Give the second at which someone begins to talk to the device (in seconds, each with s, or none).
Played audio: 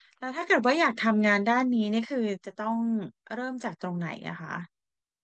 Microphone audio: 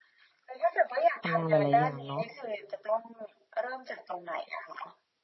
1.2 s